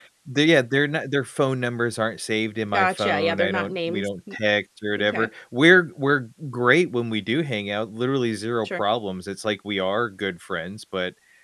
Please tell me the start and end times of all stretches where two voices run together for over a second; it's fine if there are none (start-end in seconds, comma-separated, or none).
2.7-4.1